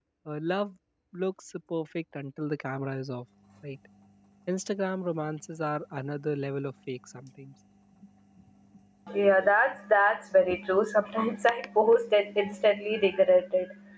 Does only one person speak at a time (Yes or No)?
Yes